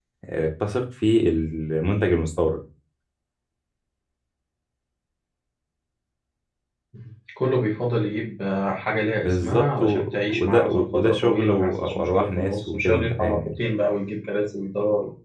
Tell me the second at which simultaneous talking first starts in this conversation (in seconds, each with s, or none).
9.2 s